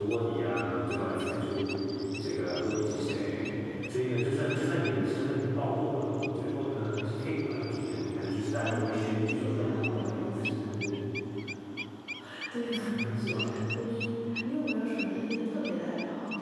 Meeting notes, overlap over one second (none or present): present